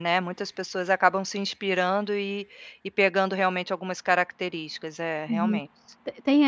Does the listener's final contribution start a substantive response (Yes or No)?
Yes